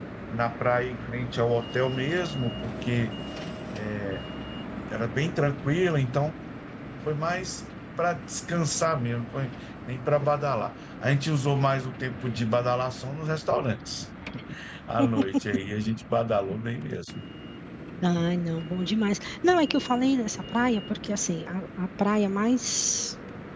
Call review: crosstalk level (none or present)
none